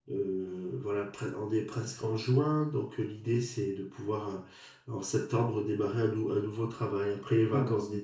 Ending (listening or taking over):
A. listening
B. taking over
B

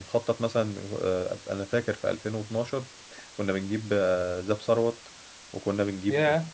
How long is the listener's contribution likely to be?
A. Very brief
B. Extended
A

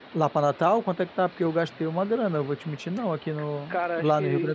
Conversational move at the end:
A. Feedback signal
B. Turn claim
B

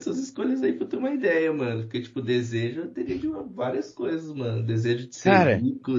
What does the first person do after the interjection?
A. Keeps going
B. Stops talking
A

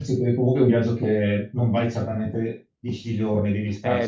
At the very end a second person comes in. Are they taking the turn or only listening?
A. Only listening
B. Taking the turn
B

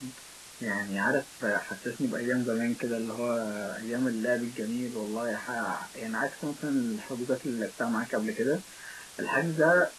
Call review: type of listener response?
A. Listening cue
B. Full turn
A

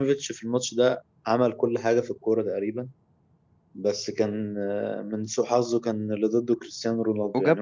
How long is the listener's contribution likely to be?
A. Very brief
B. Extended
B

